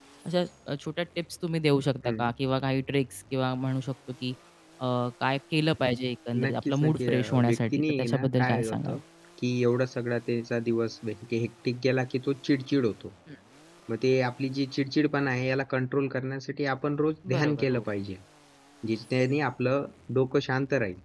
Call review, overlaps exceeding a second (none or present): present